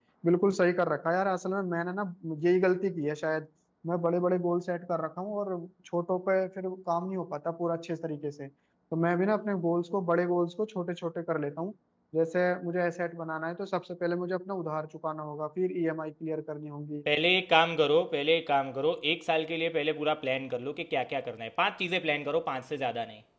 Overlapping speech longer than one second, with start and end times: none

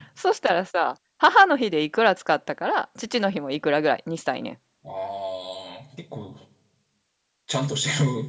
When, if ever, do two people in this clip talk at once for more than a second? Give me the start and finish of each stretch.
none

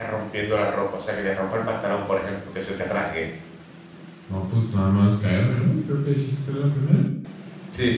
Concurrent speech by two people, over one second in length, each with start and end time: none

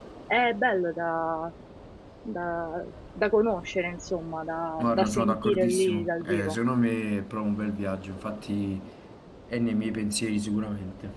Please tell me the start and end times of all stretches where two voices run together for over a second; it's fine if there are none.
4.8-6.6

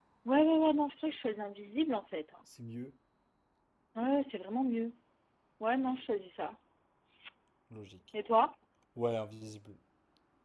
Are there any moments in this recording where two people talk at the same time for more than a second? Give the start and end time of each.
none

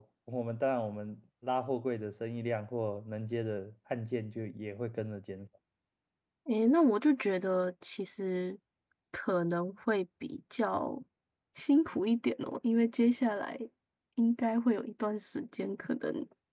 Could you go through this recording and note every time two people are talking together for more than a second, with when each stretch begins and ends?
none

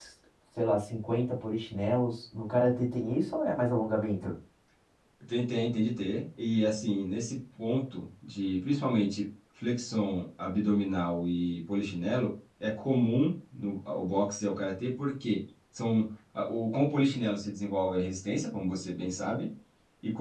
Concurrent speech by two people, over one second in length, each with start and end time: none

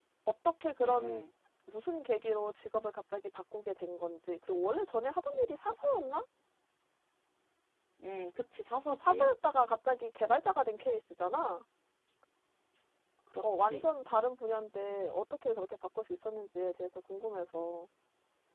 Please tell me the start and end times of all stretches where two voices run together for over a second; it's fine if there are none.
none

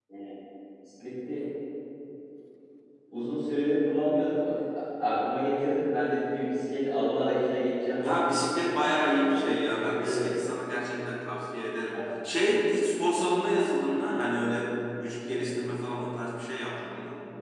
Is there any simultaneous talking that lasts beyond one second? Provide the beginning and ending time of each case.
9.0-10.3

